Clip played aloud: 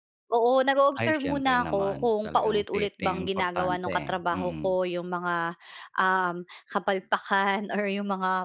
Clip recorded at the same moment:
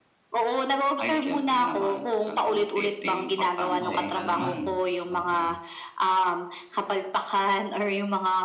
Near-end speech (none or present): present